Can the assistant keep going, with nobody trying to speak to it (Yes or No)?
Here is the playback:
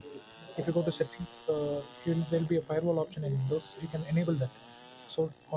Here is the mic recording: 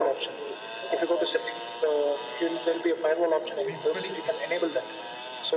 No